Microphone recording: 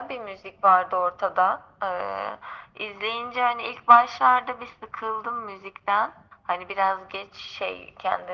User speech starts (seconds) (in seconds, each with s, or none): none